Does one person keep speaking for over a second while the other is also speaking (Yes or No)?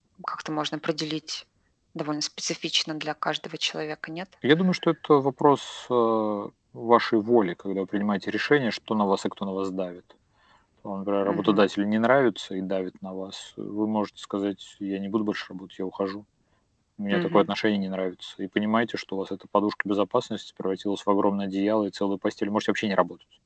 No